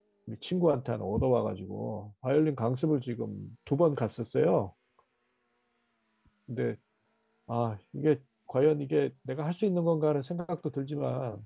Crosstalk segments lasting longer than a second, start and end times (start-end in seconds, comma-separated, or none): none